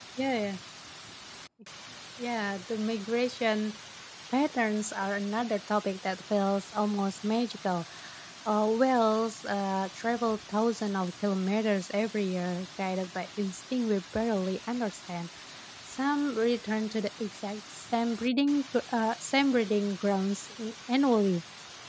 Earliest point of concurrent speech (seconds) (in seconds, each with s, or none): none